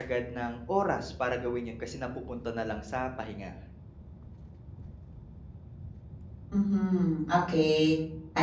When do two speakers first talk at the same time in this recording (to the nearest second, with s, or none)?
none